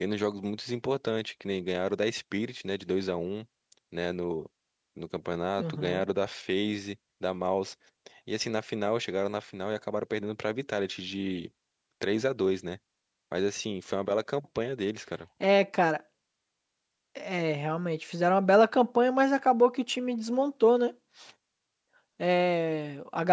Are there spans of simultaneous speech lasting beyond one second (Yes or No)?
No